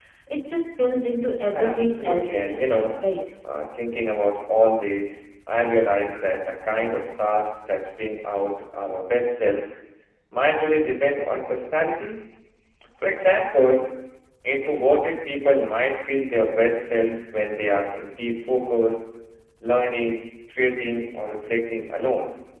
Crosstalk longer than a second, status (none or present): present